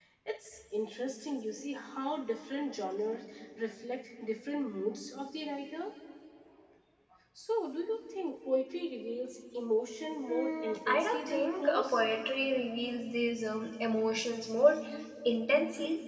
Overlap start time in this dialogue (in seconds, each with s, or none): 10.3 s